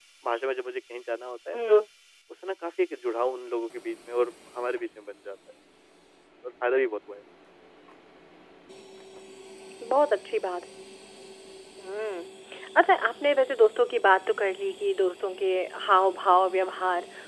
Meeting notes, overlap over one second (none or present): none